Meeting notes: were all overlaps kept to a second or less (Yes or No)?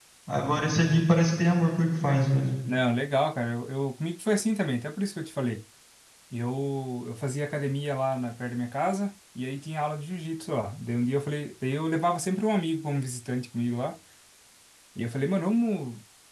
Yes